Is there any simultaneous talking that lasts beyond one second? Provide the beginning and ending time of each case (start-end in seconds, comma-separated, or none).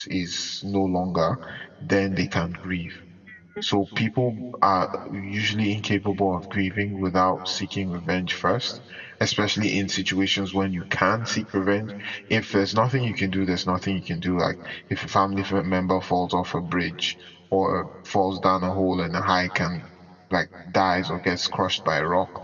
none